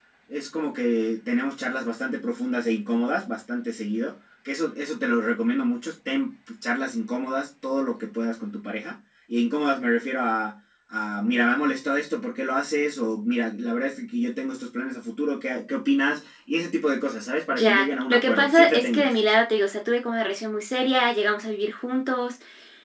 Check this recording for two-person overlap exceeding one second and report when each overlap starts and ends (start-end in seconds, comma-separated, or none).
17.5-19.1